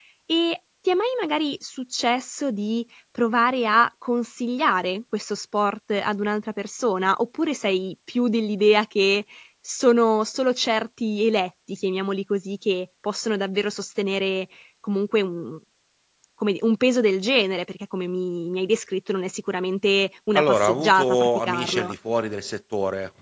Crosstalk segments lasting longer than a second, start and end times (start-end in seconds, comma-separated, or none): 20.4-21.9